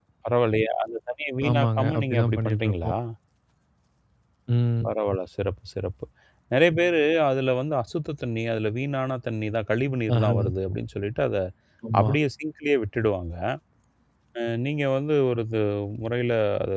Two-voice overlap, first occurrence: 1 s

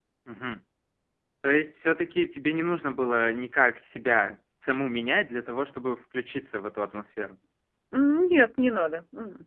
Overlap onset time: none

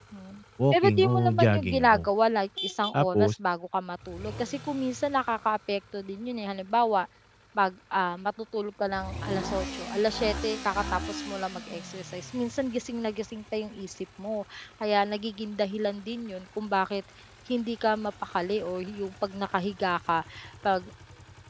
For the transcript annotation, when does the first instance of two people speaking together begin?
1 s

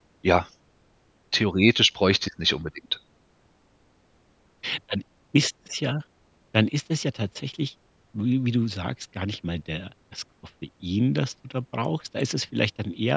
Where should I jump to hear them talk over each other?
none

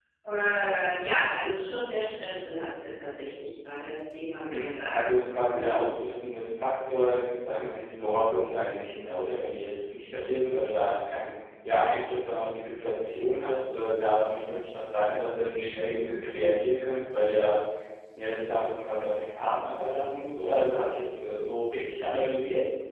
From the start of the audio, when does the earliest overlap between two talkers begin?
4 s

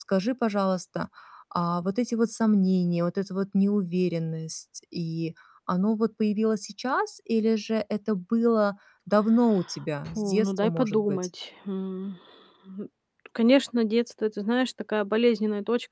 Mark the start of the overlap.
10 s

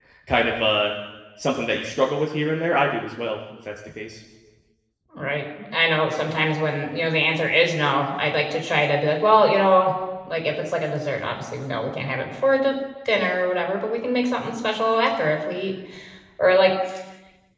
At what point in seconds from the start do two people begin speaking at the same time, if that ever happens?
none

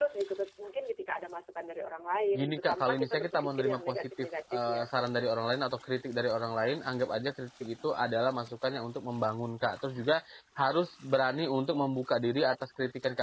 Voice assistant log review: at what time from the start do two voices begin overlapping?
2 s

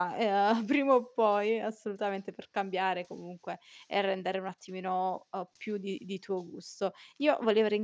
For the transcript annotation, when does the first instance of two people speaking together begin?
none

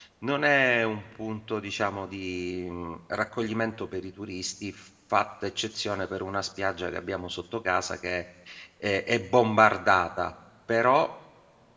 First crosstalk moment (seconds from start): none

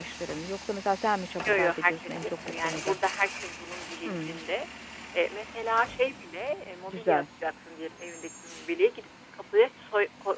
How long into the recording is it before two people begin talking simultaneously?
1 s

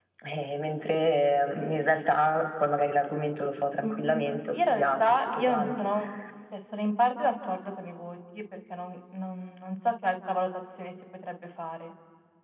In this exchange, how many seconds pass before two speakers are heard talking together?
4 s

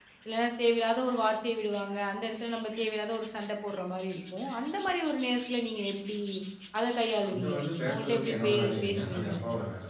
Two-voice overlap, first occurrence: 7 s

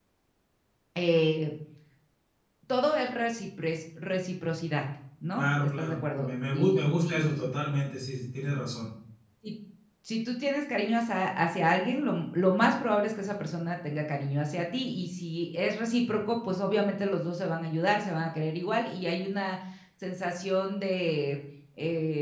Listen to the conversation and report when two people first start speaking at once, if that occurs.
5 s

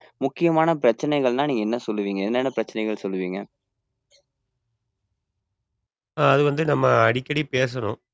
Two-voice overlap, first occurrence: none

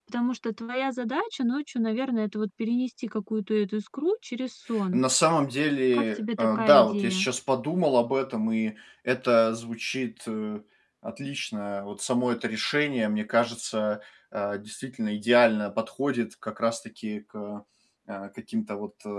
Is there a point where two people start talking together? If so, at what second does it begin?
6 s

